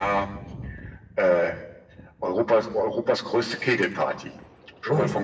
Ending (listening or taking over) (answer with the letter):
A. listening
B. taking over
B